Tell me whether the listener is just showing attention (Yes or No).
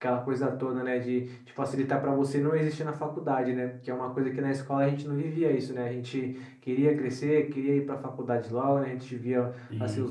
Yes